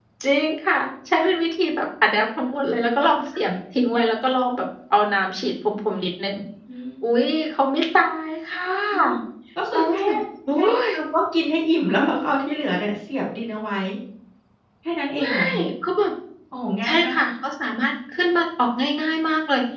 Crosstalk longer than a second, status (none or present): none